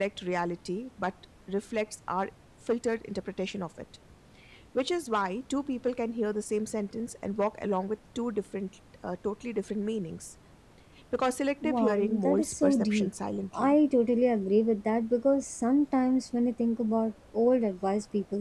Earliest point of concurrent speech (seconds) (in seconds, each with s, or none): 11.6 s